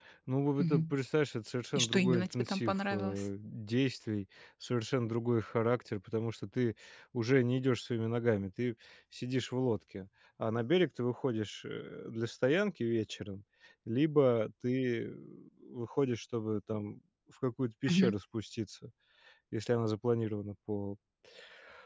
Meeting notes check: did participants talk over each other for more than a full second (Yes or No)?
Yes